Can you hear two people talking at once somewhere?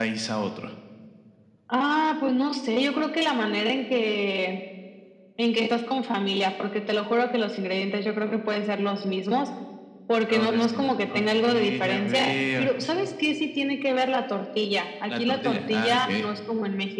Yes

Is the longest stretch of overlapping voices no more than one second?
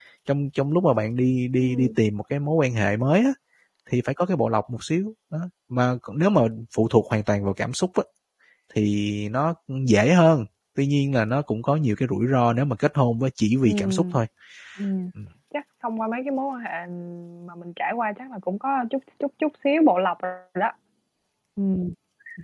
Yes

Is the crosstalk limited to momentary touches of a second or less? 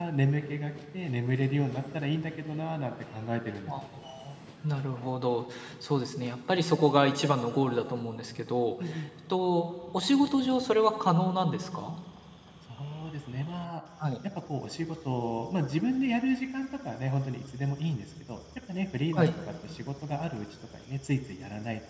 Yes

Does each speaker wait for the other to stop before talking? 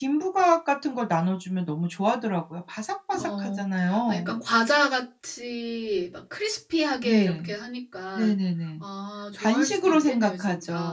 No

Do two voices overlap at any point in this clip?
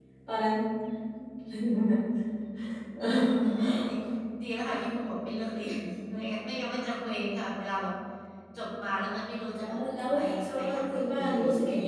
Yes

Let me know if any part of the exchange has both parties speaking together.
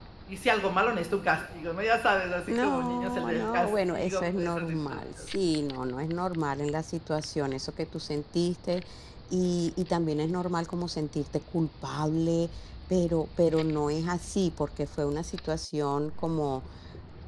Yes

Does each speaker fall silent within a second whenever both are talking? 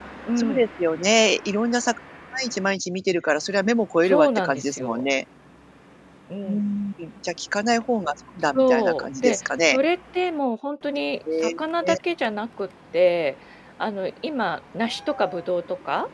No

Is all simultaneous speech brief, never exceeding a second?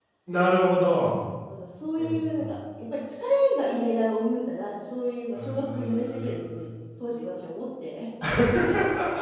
No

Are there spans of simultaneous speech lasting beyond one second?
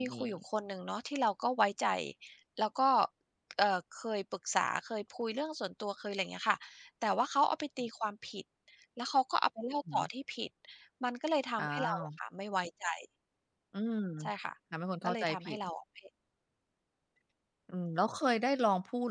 No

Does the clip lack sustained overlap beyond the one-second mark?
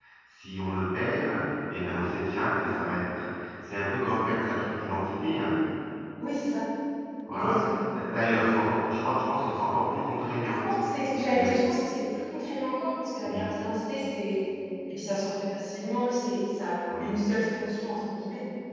Yes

